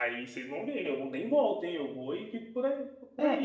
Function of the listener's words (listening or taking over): taking over